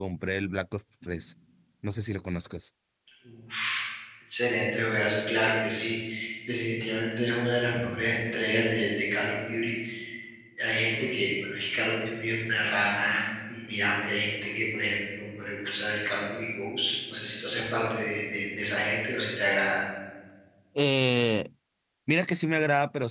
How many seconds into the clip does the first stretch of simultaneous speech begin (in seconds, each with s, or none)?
none